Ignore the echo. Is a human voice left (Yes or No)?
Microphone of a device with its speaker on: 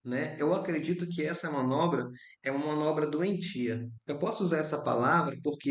Yes